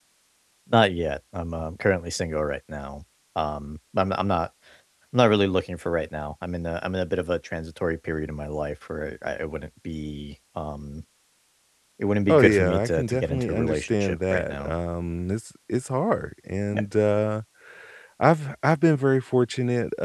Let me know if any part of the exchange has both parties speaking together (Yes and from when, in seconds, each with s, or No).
Yes, from 12.3 s